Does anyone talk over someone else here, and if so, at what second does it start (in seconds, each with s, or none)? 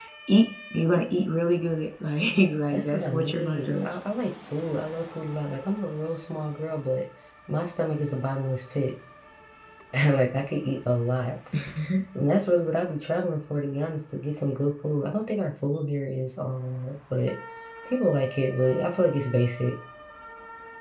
2.7 s